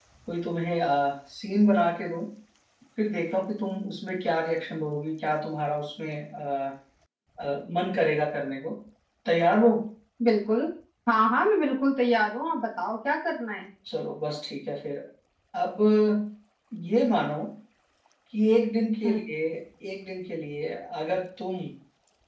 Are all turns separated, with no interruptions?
Yes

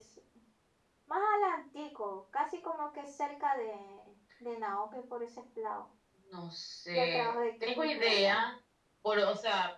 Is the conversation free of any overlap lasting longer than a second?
No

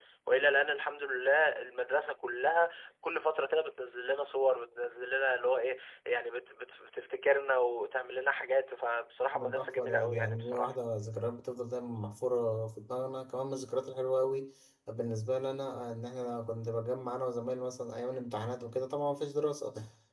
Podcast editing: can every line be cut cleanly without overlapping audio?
No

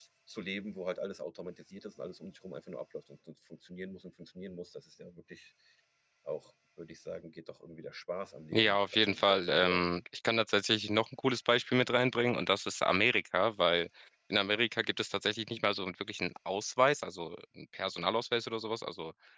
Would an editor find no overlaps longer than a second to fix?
No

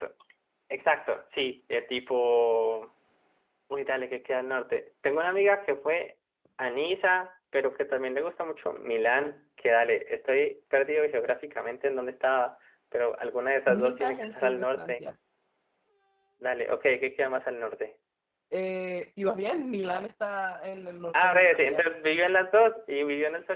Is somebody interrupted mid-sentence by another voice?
Yes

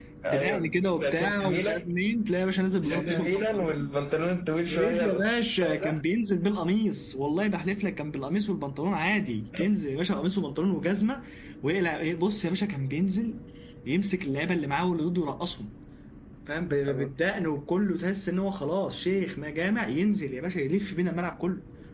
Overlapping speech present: Yes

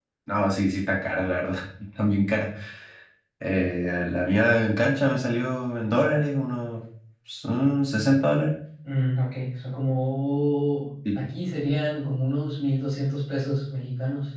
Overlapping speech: No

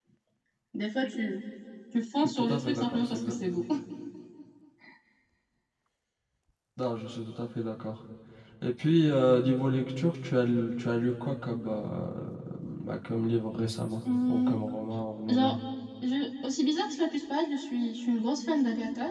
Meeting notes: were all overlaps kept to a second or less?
No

